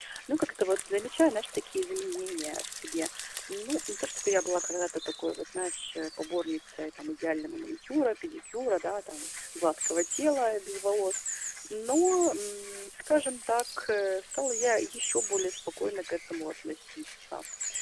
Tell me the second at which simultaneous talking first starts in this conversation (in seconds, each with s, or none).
none